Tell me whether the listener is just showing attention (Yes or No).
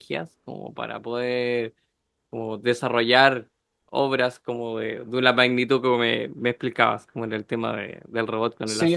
No